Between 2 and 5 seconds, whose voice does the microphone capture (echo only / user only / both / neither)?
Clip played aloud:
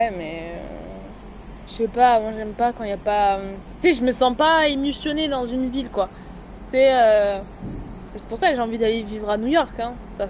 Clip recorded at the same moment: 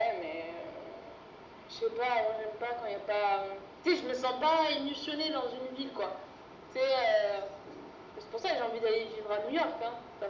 echo only